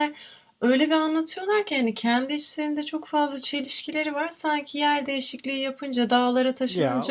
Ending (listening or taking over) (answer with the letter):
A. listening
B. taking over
A